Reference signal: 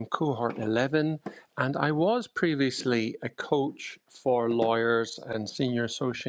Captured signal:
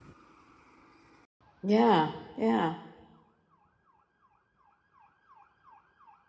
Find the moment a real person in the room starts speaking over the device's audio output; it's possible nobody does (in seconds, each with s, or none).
1.6 s